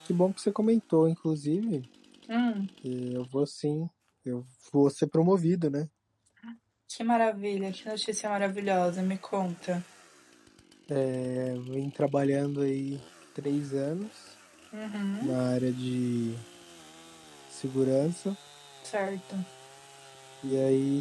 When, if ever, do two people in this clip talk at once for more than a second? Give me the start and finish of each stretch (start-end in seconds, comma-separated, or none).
none